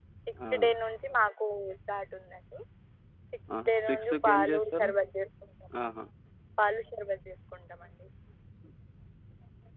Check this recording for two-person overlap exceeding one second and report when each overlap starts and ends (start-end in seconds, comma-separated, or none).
3.7-4.9